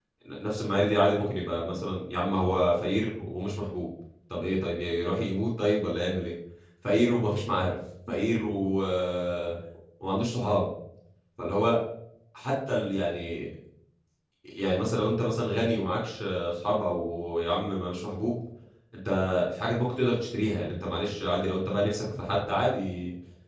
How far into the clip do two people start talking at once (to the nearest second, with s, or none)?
none